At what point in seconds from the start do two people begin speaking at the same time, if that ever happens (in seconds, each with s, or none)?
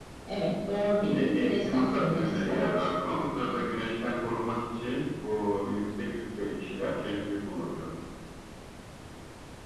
1.0 s